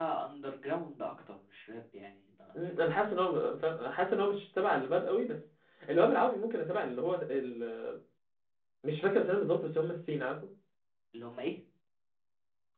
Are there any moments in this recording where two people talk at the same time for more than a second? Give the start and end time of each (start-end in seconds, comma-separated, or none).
none